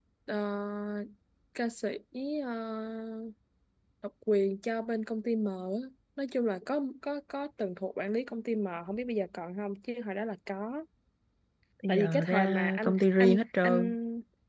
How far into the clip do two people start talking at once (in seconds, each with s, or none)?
11.9 s